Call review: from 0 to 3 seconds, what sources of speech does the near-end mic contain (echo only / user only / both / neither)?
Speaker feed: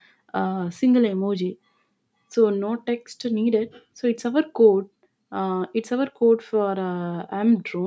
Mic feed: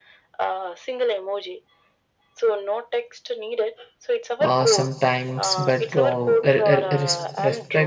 echo only